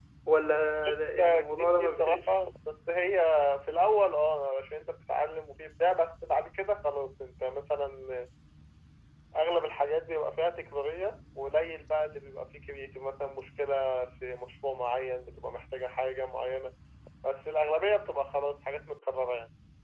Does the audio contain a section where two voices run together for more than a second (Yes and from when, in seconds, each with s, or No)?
Yes, from 1.0 s